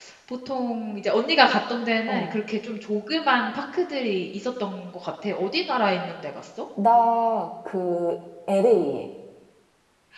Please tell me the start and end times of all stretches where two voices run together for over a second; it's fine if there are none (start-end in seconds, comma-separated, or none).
none